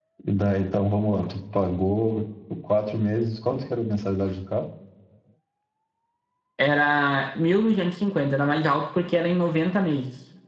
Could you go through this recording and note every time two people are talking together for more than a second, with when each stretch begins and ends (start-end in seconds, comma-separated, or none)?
none